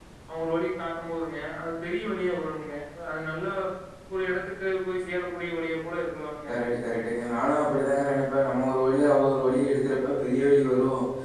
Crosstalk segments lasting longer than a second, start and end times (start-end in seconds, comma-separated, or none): none